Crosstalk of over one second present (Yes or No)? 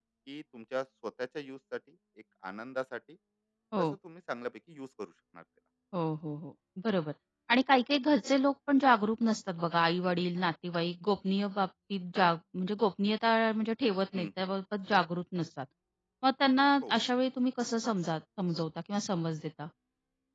No